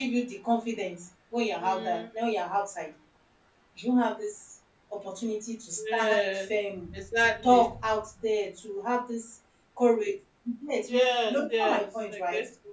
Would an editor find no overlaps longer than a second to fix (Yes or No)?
No